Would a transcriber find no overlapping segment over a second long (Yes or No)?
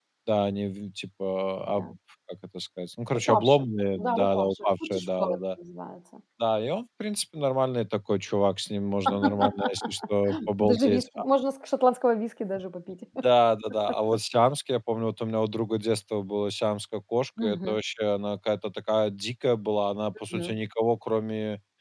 No